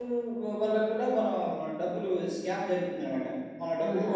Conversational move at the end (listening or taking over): listening